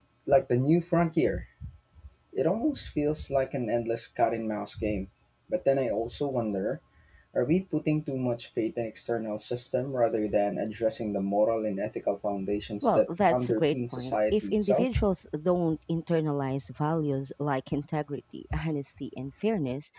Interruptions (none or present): present